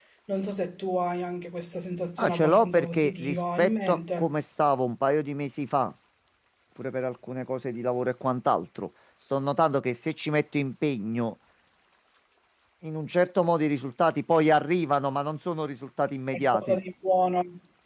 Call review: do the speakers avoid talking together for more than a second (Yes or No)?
No